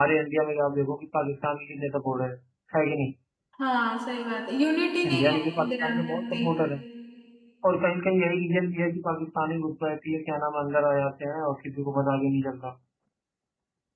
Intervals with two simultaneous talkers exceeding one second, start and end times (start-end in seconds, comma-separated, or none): 5.0-6.5